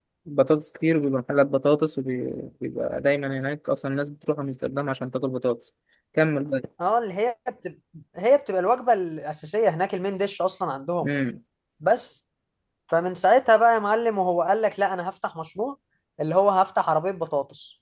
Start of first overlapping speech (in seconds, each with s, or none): none